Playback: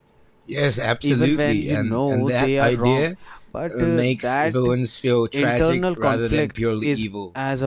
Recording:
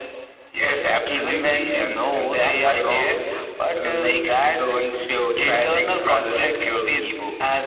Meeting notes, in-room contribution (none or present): none